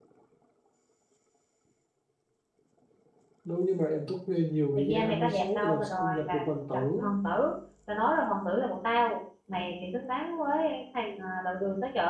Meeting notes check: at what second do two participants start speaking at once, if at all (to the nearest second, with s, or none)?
5 s